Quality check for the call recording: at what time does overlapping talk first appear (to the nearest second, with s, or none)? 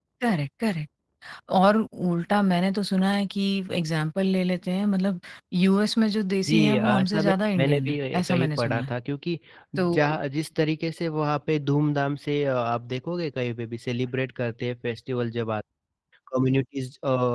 6 s